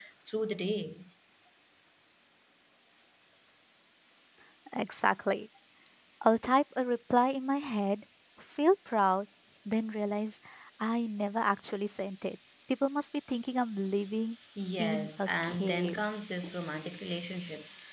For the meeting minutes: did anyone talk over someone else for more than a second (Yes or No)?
Yes